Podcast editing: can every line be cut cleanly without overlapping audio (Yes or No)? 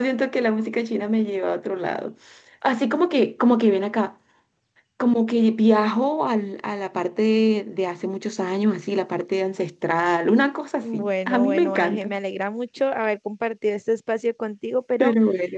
No